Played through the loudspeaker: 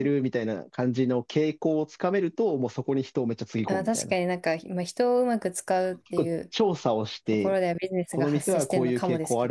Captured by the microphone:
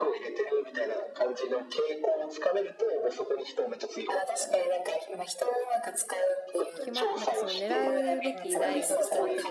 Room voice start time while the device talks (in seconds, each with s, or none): 6.7 s